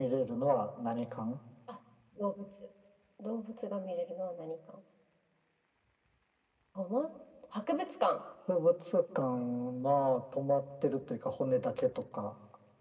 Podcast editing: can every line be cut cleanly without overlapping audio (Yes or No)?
Yes